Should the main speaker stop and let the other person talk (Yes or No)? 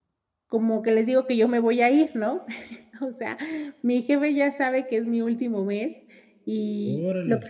No